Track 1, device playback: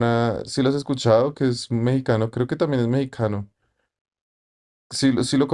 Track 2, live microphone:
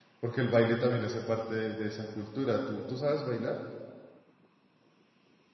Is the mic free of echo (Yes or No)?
Yes